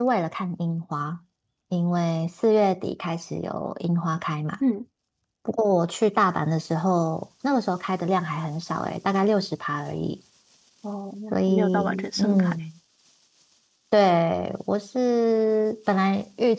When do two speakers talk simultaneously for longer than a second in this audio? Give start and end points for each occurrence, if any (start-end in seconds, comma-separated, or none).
11.3-12.6